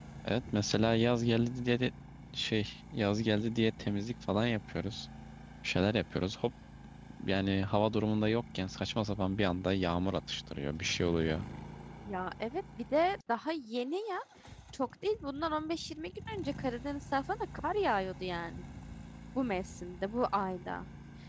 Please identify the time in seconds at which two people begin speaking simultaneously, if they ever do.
none

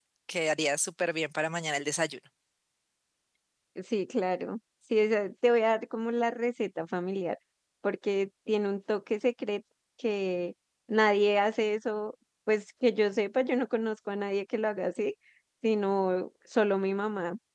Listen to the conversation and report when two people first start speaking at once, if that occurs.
none

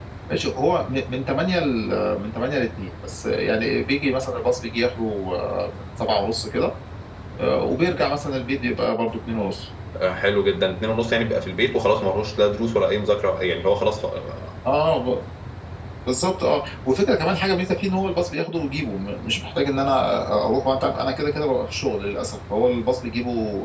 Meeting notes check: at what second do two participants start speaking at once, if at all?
none

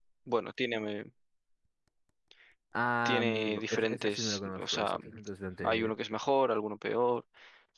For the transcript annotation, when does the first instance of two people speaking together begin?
3.0 s

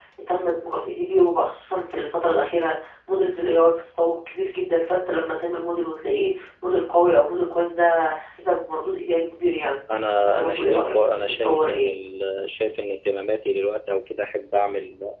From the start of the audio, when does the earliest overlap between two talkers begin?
10.2 s

